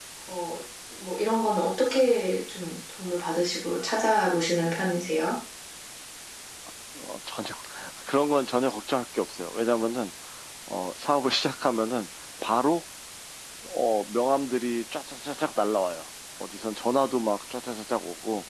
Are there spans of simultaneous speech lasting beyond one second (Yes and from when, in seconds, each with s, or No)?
No